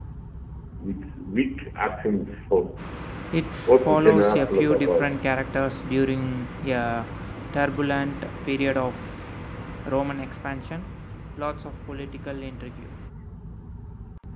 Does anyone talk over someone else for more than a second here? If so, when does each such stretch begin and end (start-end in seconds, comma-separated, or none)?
3.9-5.1